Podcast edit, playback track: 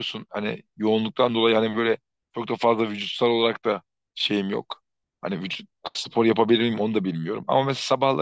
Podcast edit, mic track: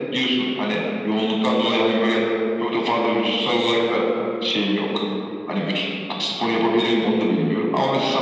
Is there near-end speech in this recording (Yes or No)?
No